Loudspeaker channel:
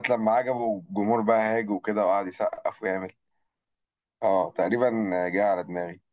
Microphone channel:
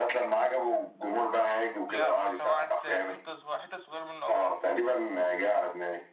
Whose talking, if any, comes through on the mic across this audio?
both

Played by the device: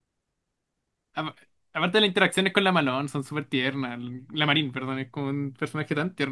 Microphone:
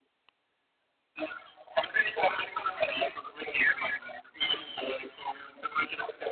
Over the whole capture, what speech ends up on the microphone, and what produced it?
echo only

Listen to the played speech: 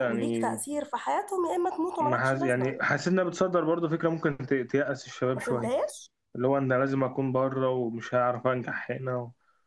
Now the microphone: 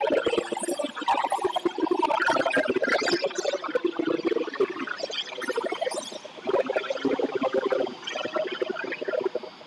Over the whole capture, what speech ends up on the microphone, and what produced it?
echo only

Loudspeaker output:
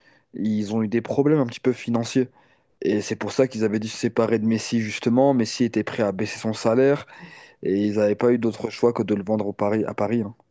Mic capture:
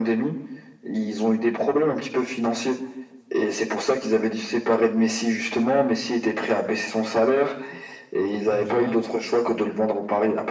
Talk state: both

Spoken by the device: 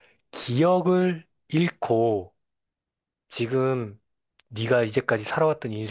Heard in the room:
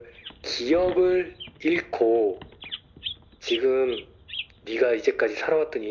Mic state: echo only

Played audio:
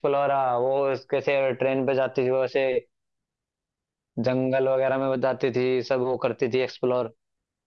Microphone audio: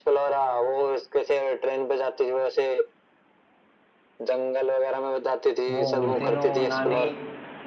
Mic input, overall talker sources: both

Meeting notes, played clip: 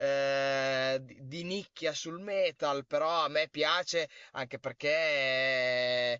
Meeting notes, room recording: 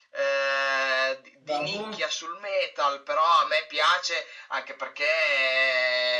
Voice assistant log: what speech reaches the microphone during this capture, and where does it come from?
both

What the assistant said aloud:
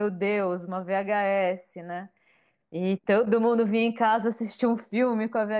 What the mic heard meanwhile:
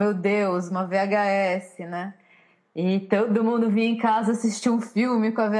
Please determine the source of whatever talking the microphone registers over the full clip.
echo only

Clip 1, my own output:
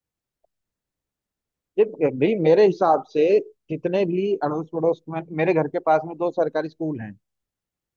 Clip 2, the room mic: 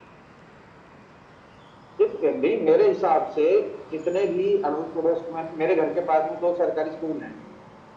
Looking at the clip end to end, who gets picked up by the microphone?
echo only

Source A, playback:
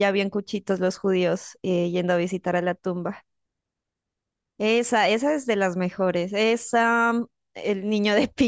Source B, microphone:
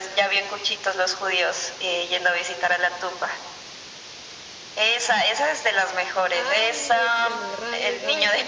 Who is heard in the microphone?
both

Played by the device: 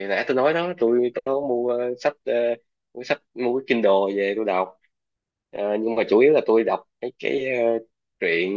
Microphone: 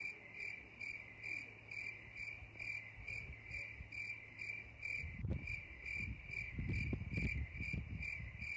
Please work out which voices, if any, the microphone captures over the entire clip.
neither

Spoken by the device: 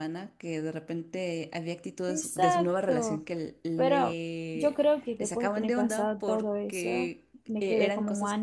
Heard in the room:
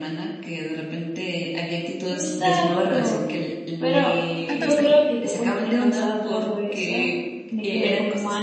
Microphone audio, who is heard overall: both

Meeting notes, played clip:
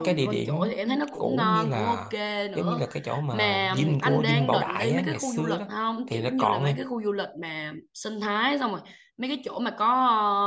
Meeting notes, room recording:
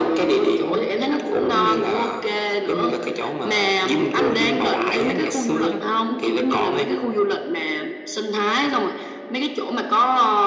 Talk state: echo only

